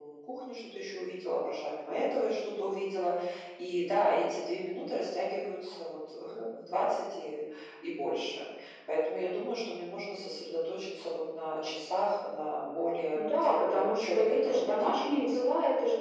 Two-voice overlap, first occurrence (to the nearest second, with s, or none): 14 s